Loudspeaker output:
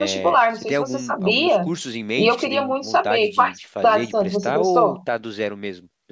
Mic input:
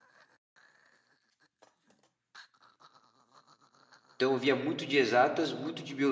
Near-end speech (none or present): present